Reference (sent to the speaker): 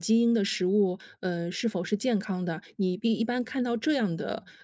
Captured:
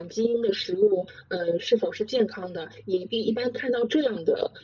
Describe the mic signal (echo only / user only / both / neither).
echo only